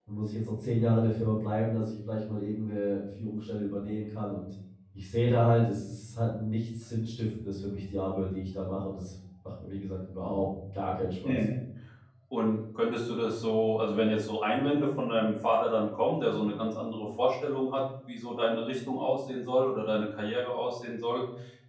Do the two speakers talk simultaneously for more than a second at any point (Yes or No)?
No